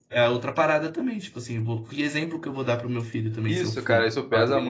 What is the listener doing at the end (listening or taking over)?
taking over